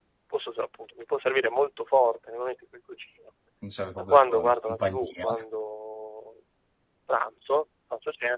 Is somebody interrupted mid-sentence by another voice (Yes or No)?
Yes